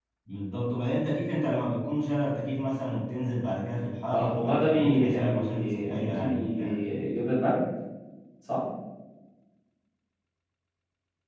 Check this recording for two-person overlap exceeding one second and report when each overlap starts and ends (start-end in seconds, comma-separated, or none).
4.1-6.8